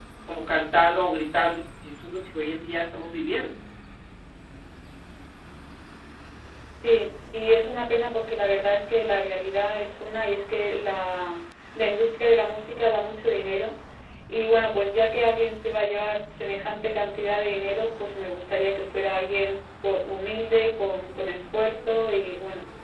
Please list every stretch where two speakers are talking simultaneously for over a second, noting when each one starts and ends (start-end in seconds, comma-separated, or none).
none